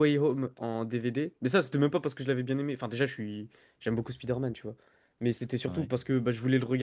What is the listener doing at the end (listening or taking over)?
listening